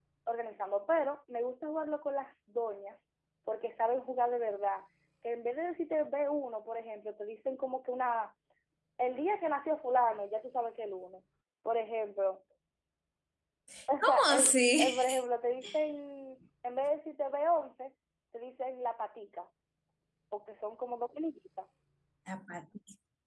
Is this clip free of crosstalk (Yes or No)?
No